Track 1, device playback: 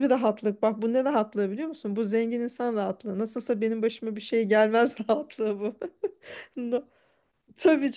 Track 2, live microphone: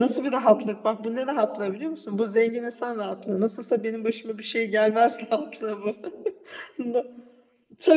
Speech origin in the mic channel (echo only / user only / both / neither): echo only